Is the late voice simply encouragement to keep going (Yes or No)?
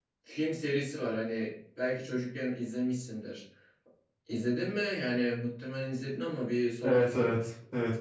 No